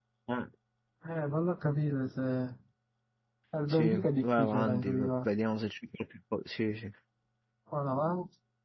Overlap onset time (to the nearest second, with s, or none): 4 s